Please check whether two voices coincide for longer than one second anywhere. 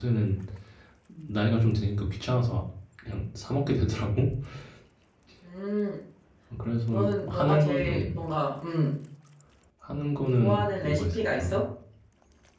Yes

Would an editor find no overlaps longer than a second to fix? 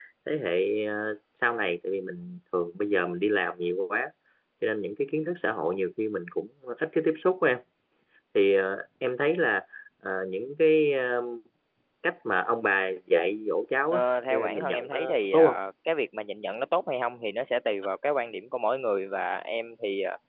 No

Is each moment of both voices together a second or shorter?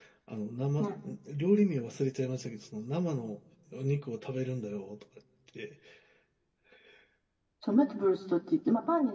Yes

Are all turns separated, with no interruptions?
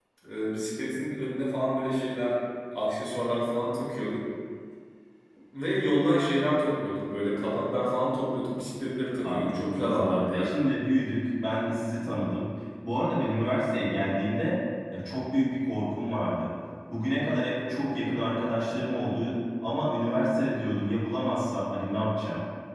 No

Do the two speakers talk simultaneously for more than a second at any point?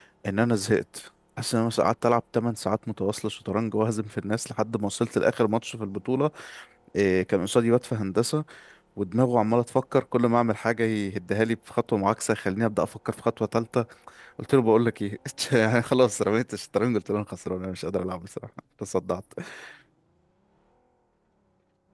No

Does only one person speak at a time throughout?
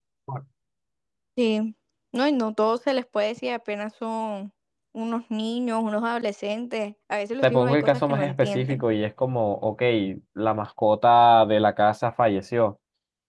No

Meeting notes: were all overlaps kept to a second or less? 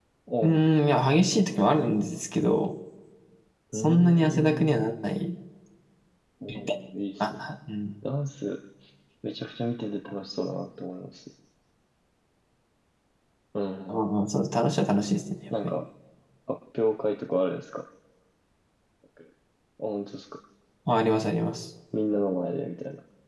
No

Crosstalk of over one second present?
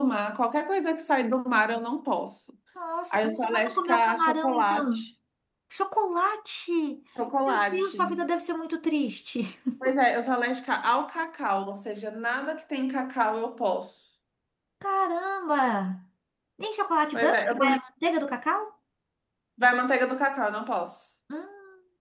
Yes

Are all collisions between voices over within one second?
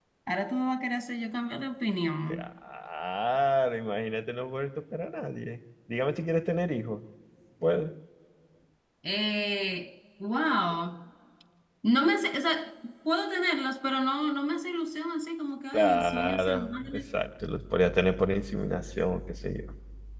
No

